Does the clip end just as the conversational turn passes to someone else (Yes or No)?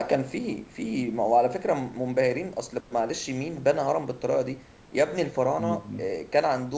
No